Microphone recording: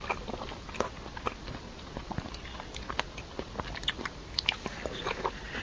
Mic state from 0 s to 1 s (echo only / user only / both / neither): neither